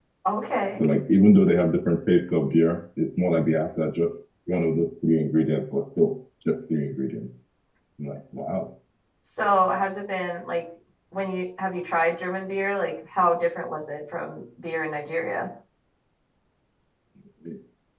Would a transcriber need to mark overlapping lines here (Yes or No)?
No